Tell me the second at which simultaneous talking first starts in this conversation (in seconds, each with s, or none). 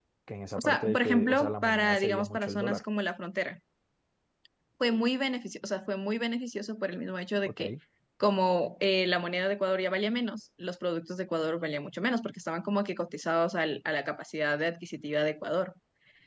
0.6 s